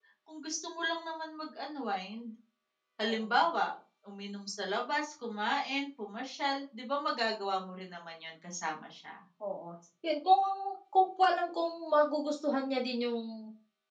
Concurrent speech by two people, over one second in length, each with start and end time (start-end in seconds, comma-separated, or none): none